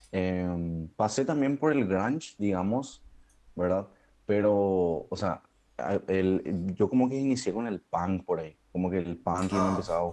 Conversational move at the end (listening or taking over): listening